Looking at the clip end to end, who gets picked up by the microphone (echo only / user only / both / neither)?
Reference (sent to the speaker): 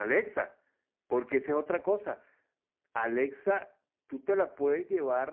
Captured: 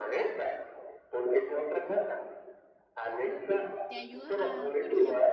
both